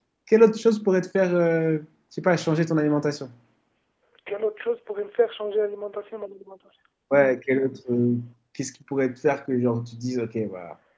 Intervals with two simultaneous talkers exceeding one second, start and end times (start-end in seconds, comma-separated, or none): none